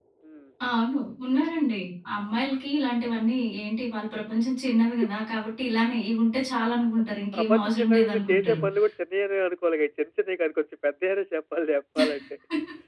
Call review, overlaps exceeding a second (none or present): present